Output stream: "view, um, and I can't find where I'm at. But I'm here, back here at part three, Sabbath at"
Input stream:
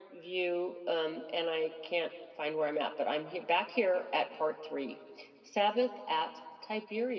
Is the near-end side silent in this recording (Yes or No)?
Yes